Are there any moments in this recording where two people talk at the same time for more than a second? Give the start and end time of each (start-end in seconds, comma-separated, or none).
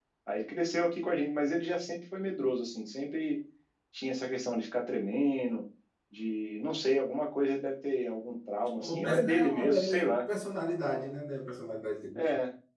8.8-10.3